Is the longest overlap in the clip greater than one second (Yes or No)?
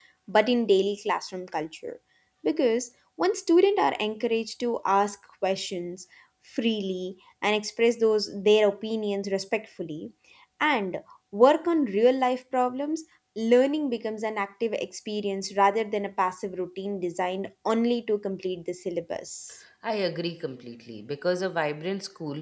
No